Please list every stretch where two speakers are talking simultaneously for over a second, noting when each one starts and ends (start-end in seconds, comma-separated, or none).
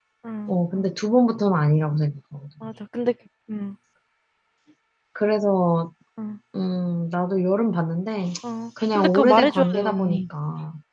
8.9-10.2